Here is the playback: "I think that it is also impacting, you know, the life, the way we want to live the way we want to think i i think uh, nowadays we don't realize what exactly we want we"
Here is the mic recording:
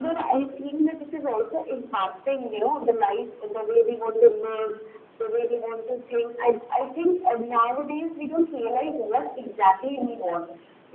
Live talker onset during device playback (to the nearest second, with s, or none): none